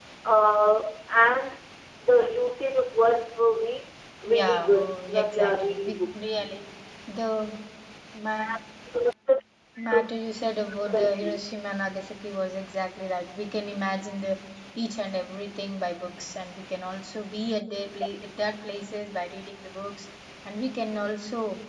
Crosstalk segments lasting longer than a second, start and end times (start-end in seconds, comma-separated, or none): 4.4-6.4